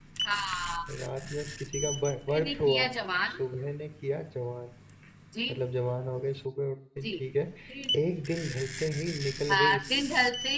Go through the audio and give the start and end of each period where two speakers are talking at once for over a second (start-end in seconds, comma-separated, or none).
none